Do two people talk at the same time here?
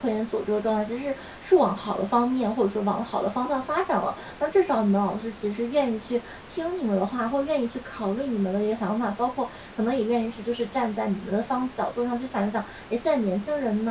No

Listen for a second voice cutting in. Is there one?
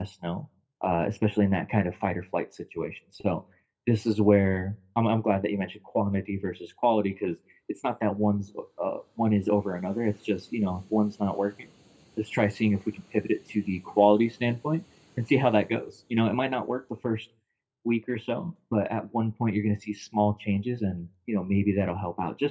No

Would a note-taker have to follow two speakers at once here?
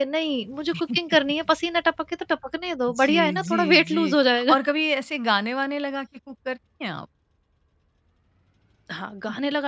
Yes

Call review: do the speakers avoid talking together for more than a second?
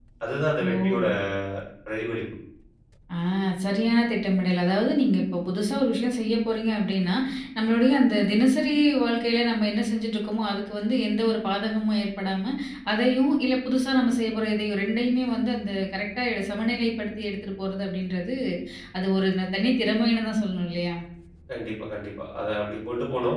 Yes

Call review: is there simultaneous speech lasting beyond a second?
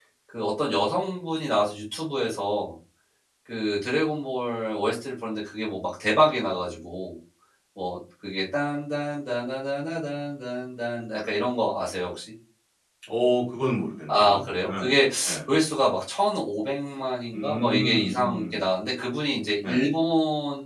Yes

